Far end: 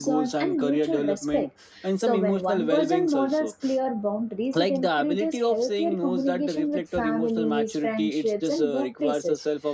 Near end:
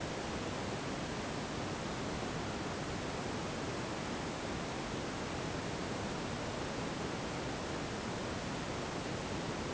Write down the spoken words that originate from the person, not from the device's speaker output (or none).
none